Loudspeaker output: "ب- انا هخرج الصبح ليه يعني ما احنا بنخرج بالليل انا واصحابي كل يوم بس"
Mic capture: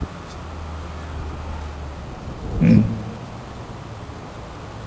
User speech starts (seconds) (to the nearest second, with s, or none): 3 s